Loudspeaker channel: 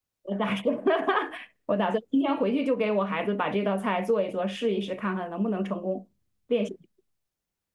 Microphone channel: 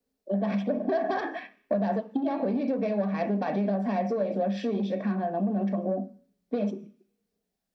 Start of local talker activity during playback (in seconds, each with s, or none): none